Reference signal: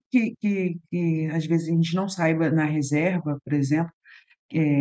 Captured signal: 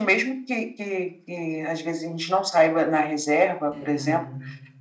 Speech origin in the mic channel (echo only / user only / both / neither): both